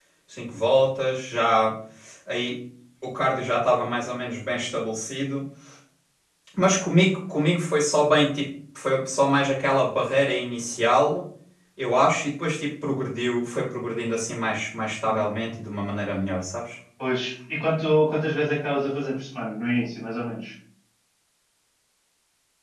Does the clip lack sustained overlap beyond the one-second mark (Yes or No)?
Yes